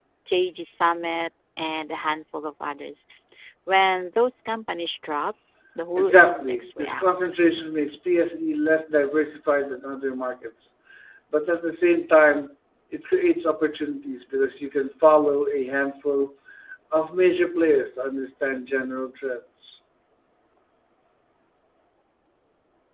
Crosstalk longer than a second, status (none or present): present